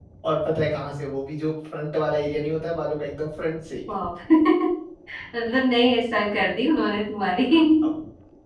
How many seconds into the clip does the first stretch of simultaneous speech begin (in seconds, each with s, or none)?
none